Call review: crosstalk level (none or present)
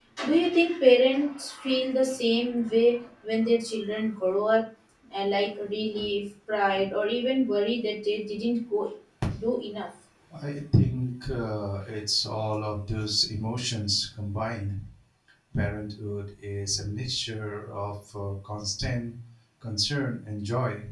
none